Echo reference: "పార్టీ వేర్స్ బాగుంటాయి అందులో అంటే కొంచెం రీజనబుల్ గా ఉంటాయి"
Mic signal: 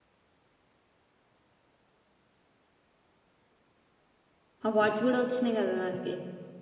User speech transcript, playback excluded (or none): అవార్స్ కూడా వచ్చినాయి కదా దానికి